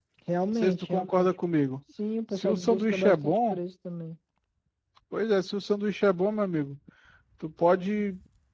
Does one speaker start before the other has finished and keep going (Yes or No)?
Yes